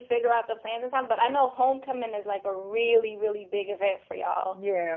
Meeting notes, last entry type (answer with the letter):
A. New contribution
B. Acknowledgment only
A